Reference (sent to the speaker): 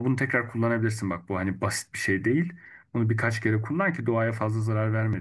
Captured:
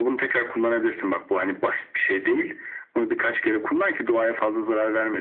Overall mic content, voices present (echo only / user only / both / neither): echo only